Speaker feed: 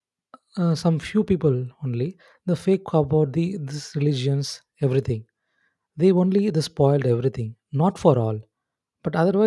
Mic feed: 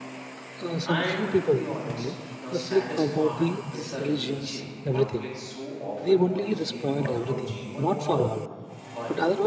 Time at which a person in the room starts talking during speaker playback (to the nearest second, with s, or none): 1 s